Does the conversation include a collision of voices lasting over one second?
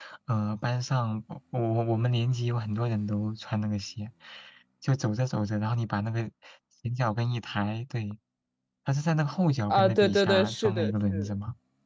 Yes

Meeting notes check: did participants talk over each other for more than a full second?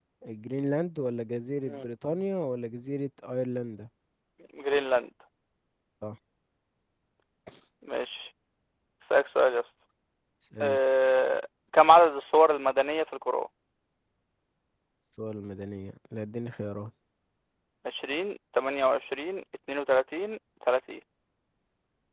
No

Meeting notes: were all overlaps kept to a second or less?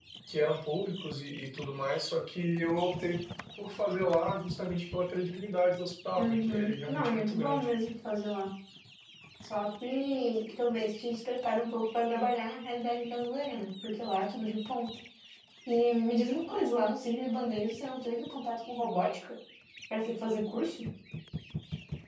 No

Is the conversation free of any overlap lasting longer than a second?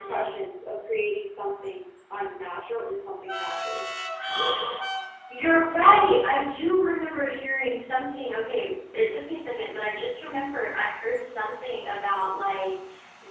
Yes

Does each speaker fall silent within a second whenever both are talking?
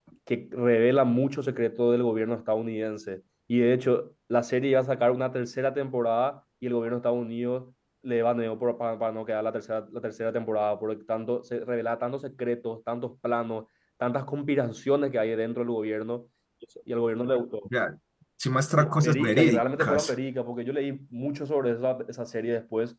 No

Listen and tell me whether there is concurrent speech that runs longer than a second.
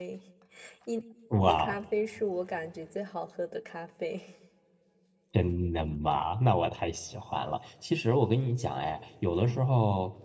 No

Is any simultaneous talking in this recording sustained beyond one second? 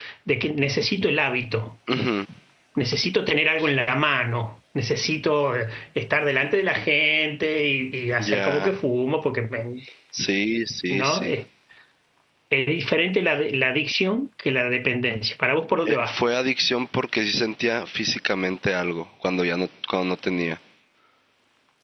No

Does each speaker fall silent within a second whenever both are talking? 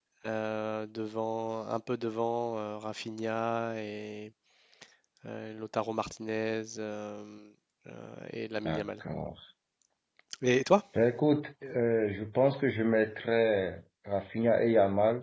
Yes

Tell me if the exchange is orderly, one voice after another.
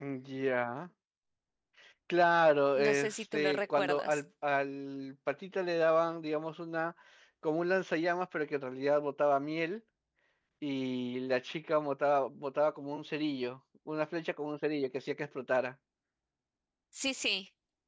No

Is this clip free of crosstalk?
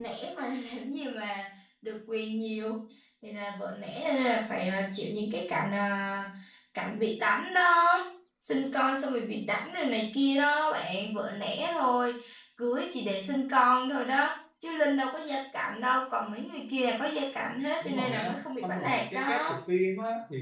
No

